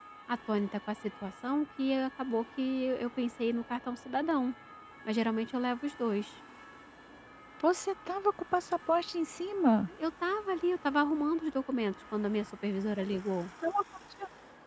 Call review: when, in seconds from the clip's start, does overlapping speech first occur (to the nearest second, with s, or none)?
none